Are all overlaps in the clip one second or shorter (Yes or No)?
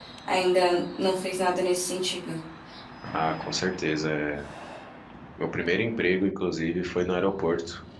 Yes